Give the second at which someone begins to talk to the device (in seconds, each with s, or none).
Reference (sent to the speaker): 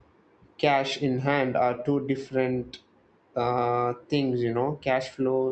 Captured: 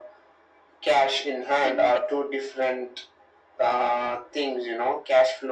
1.6 s